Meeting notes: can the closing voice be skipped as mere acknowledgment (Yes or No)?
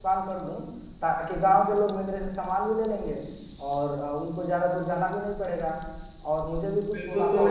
No